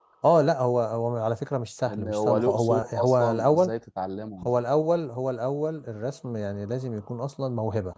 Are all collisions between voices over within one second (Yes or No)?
No